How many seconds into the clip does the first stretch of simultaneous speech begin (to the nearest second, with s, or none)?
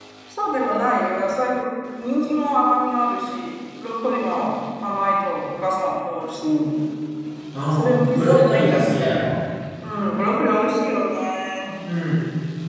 8 s